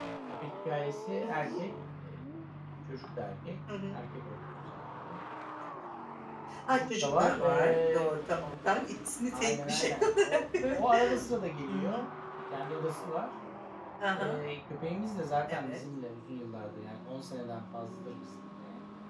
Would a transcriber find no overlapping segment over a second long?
No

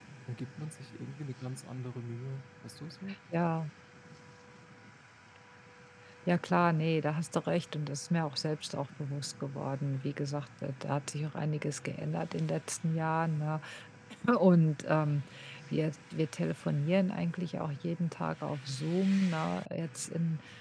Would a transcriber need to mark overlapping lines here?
No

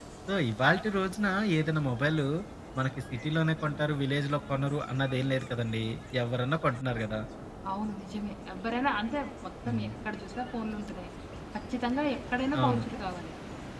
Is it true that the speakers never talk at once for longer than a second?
Yes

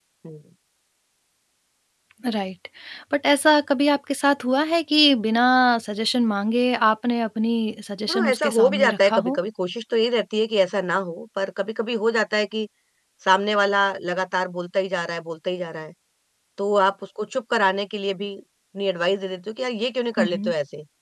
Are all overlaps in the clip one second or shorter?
No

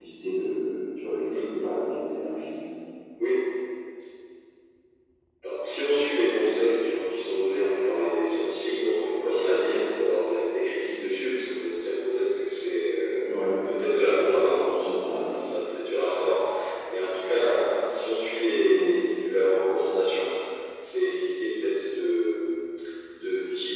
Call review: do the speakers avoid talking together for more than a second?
Yes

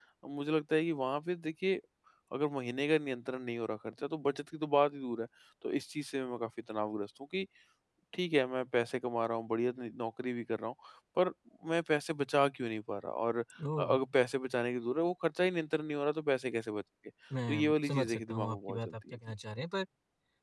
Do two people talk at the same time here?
Yes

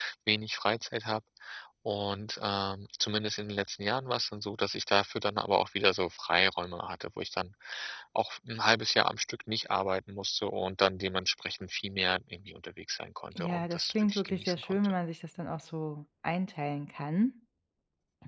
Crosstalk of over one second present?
Yes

